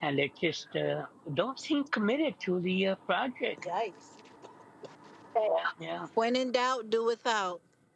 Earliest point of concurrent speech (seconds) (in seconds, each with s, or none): none